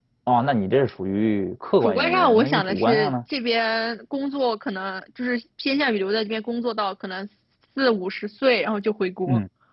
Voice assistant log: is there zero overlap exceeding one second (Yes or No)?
No